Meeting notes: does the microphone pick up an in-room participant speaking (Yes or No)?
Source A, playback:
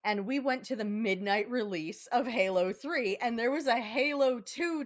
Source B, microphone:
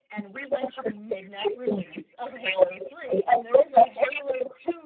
No